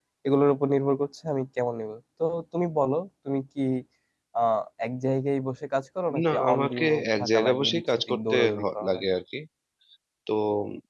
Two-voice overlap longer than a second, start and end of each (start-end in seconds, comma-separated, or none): 6.3-9.1